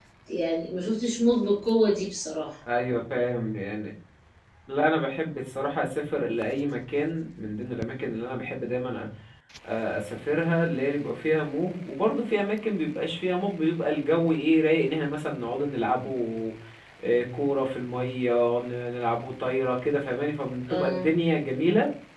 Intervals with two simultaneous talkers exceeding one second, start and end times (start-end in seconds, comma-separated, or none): none